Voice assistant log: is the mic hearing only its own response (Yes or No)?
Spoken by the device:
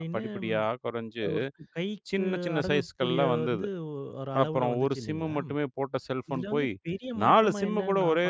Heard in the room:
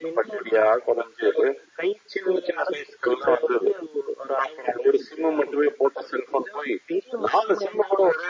Yes